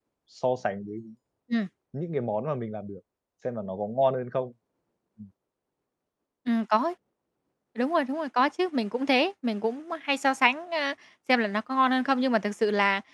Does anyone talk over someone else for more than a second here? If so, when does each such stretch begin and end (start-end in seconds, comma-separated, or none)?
none